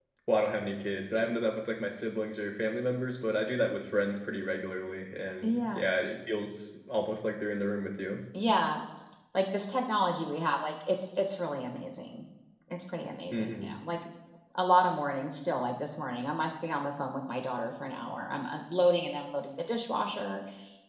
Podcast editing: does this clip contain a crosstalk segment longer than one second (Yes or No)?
No